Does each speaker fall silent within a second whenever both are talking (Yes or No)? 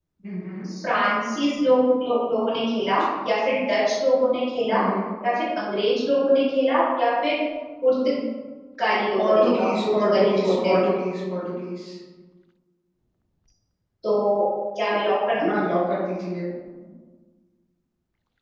No